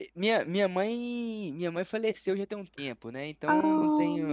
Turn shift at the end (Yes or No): No